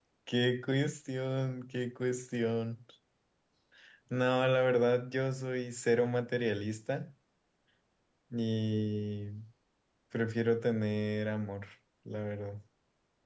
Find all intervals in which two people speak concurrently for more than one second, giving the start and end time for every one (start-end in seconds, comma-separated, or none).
none